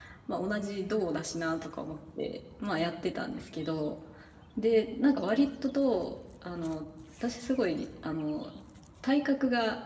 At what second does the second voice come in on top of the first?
none

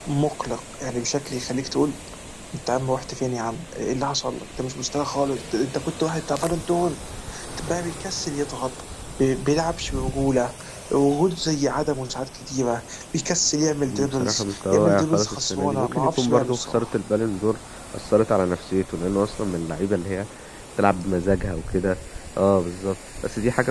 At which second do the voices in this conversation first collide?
14 s

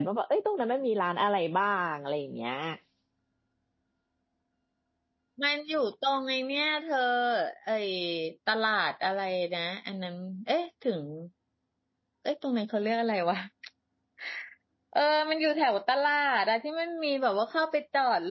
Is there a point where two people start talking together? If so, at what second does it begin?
none

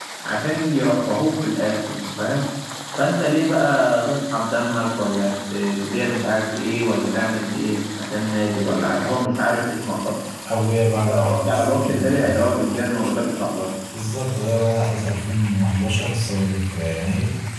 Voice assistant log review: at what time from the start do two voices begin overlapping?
11 s

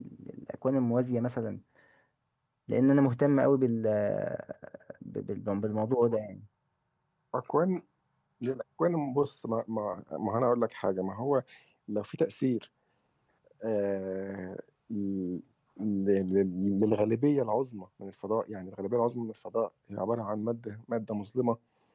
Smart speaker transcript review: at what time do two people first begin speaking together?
none

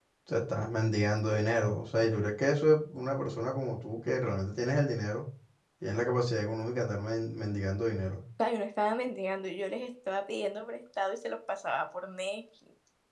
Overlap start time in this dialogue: none

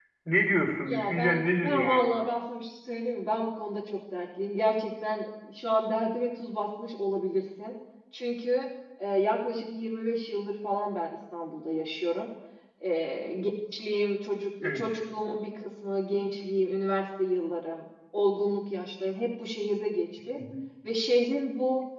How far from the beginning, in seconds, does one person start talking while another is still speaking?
1 s

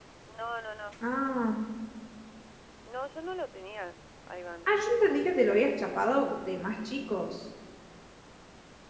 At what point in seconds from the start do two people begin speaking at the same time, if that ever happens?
none

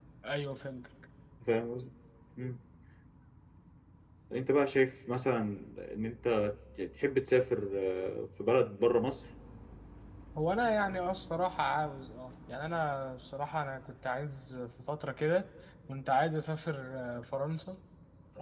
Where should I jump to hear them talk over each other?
none

